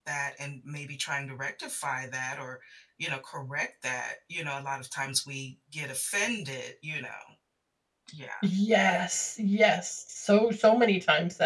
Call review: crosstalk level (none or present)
none